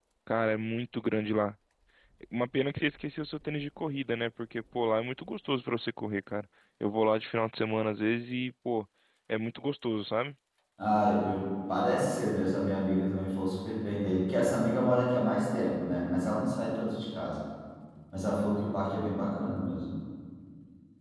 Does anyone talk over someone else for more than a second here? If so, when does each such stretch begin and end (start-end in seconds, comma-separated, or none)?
none